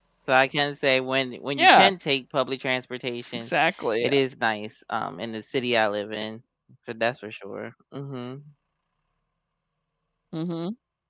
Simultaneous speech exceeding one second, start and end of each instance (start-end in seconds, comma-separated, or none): none